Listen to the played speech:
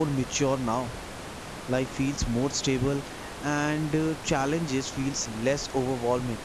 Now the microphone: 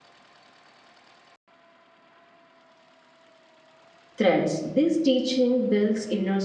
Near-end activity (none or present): present